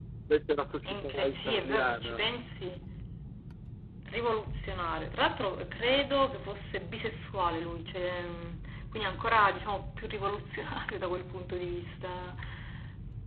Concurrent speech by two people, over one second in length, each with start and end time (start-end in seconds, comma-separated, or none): 0.8-2.3